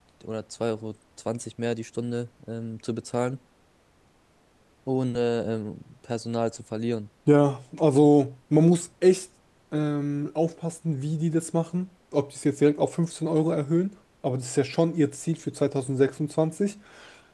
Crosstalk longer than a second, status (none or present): none